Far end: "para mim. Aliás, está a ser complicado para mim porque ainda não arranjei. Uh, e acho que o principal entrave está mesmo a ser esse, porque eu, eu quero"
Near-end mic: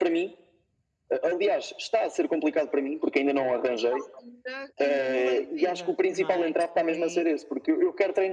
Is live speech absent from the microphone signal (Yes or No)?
No